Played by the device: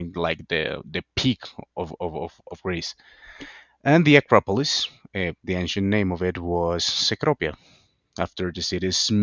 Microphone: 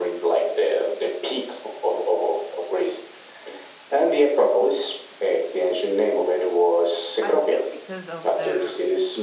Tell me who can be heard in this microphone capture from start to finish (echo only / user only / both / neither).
both